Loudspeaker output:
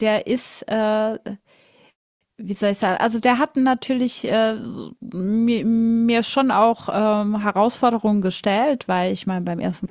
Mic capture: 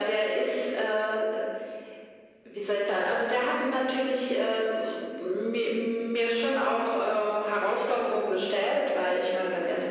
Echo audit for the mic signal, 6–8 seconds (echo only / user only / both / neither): echo only